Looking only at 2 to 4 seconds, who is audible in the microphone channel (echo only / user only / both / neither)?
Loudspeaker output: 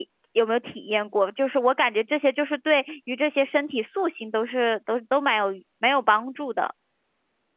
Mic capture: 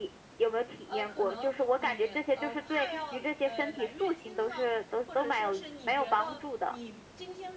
both